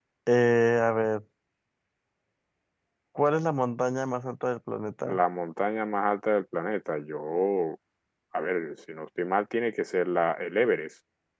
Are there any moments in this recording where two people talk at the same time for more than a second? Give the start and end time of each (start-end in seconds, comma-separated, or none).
none